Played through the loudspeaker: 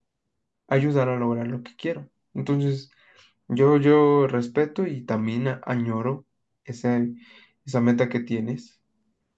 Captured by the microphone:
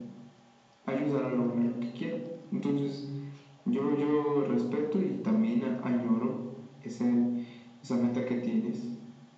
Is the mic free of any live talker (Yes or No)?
Yes